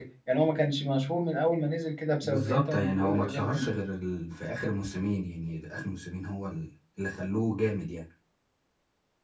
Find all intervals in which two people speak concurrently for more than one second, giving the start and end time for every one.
2.2-3.6

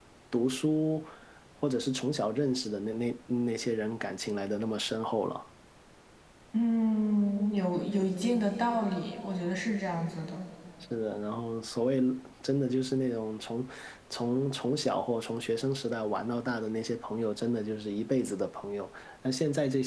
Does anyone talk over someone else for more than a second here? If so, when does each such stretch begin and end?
none

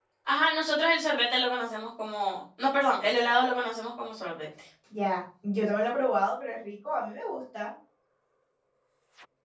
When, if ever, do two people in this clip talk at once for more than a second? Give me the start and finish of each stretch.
none

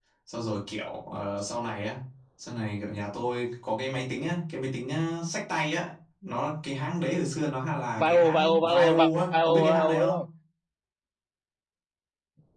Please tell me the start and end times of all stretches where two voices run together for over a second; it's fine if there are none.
8.0-10.2

